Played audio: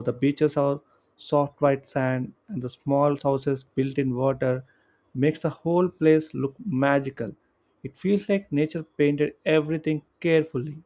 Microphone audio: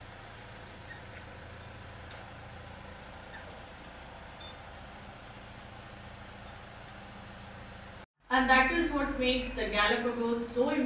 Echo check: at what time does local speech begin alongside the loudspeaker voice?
8.3 s

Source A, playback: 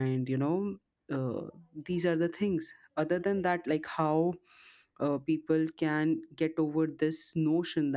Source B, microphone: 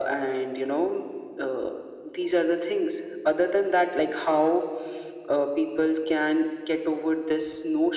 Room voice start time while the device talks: none

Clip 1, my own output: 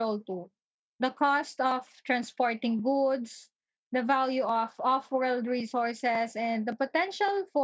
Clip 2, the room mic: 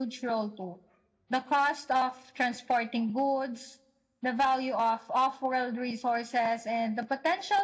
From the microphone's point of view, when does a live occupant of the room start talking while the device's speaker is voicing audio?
none

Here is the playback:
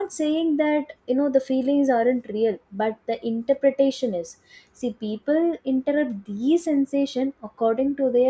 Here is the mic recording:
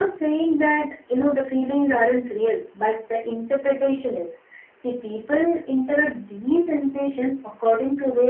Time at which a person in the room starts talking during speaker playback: none

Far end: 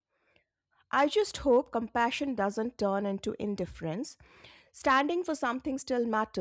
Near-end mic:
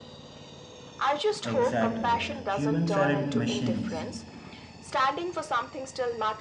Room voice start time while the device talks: 1.4 s

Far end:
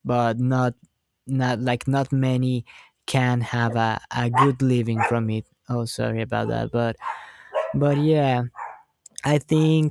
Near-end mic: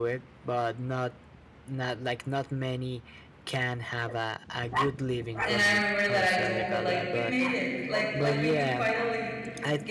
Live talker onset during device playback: 5.5 s

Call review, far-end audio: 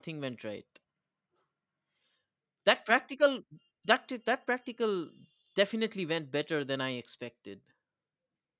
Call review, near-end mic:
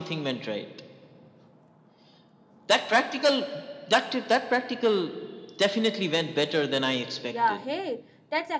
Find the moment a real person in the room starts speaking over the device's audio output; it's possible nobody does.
7.3 s

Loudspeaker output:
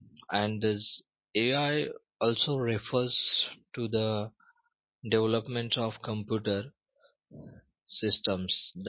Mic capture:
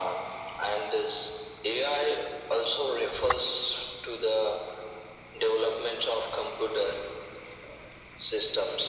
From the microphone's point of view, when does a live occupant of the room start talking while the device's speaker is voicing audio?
none

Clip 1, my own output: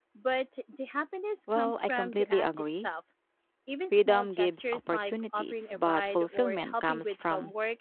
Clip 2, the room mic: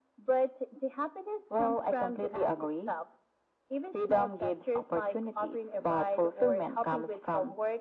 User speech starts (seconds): none

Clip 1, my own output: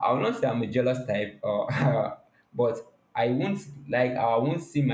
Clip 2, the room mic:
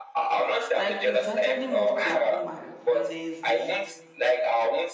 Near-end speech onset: 0.7 s

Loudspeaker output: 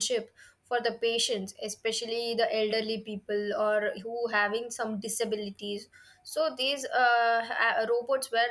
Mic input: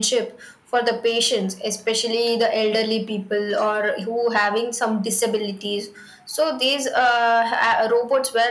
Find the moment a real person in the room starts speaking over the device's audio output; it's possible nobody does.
none

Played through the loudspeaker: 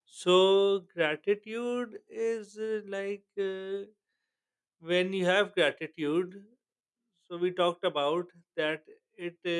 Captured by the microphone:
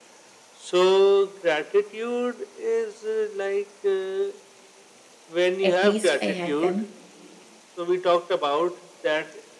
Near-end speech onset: 5.6 s

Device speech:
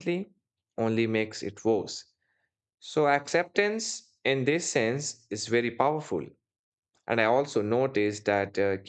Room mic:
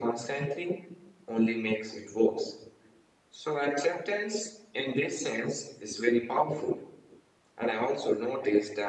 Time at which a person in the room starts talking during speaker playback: none

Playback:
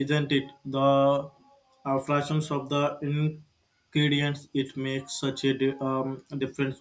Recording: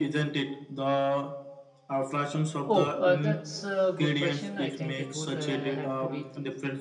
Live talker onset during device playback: 2.6 s

